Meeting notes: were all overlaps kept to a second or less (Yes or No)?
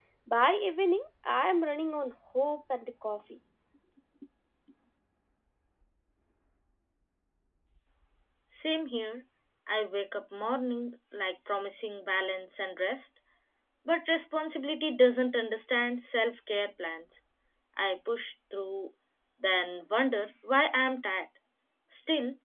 Yes